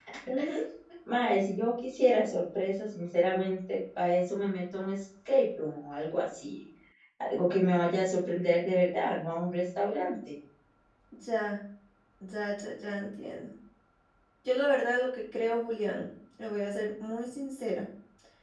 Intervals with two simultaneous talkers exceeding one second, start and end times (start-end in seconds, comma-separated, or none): none